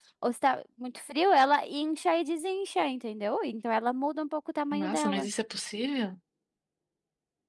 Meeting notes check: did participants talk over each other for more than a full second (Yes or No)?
No